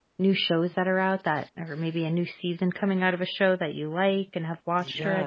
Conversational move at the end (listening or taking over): taking over